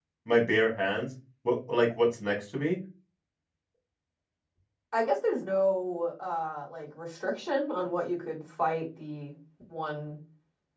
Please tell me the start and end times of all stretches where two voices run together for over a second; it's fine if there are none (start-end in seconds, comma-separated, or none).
none